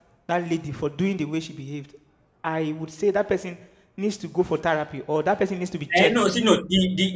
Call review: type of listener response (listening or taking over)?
taking over